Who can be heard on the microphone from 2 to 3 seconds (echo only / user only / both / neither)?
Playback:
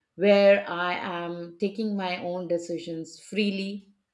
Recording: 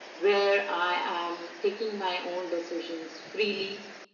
echo only